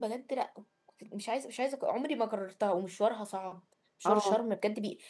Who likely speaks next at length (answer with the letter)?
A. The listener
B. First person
B